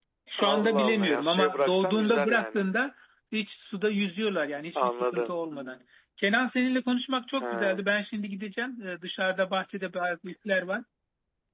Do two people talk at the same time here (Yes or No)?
Yes